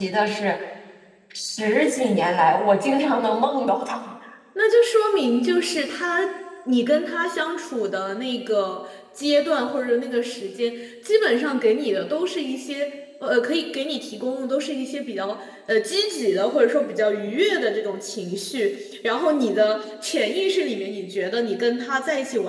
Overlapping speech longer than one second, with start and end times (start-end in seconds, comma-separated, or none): none